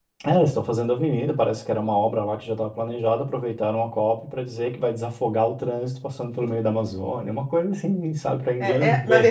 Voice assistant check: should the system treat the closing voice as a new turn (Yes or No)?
Yes